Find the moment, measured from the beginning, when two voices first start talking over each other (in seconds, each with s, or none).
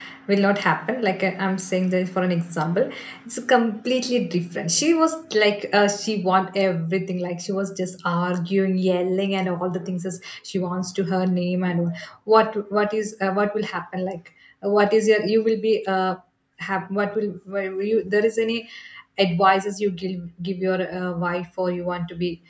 none